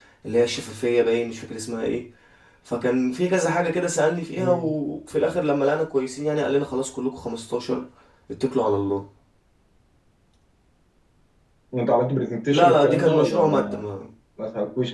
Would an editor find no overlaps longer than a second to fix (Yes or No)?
No